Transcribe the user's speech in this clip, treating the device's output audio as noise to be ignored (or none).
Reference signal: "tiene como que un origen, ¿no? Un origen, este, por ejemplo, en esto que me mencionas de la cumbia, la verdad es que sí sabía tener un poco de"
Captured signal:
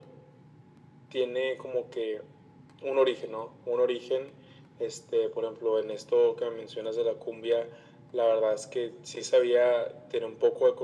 none